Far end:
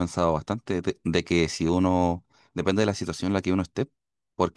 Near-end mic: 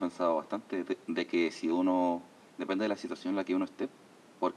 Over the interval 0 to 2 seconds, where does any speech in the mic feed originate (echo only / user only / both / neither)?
echo only